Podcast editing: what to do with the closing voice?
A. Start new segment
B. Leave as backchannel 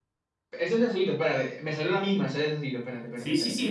A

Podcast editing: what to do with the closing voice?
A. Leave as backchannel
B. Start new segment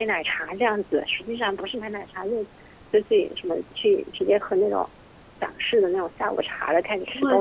A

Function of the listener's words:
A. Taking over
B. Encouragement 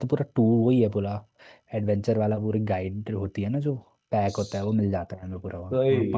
B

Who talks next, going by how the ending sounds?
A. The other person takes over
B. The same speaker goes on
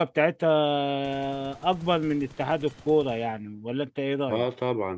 A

